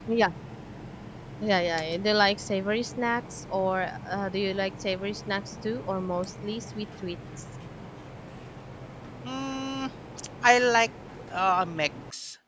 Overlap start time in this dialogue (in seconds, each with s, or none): none